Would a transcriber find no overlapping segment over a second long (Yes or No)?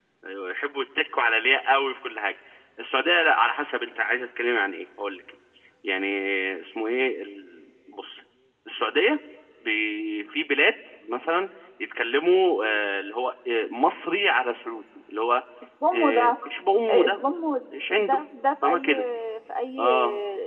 Yes